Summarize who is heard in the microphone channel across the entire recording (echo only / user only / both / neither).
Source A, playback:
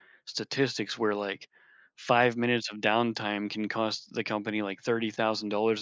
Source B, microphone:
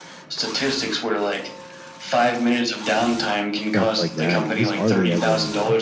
both